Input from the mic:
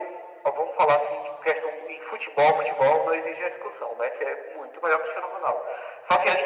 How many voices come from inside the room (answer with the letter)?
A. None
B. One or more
A